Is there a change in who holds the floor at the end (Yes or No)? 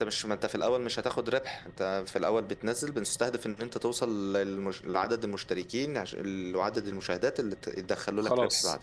Yes